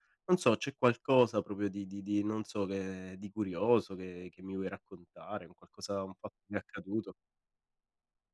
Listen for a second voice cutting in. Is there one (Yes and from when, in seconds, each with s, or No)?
No